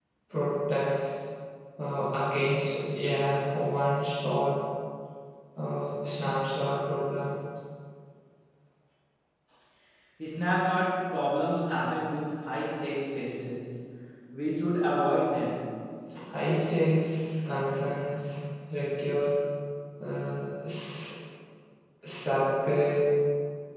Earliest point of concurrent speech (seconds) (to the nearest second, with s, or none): none